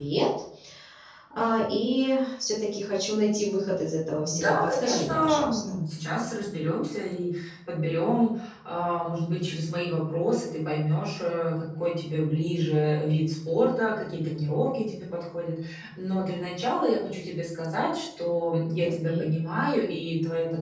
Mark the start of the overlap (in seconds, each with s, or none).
4.2 s